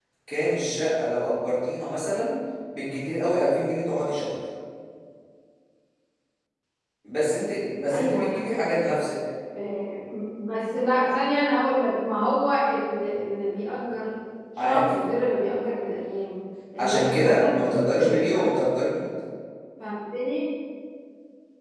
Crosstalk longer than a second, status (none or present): present